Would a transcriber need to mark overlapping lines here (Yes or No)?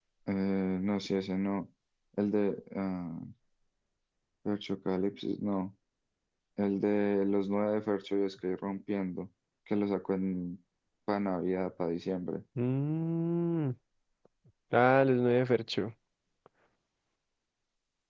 No